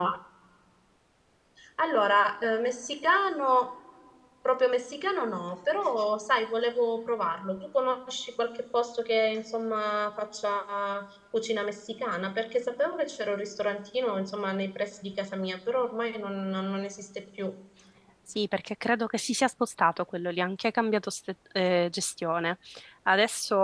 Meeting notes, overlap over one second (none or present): none